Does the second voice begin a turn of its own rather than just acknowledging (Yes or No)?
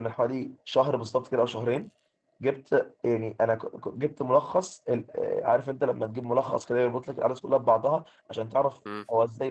No